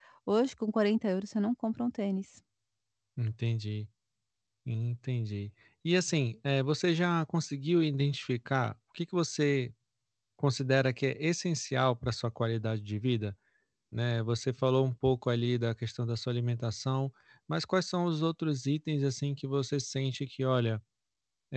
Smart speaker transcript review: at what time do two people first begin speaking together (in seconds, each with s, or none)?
none